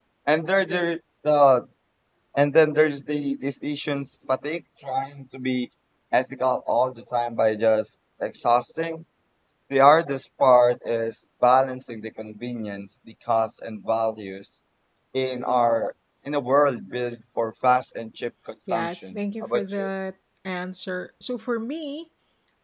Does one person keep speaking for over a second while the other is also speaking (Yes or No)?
Yes